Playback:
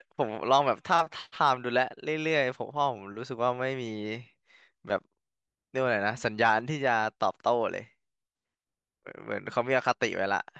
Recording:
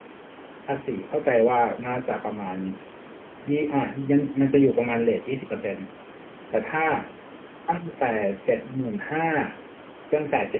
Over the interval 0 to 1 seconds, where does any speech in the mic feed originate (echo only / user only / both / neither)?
user only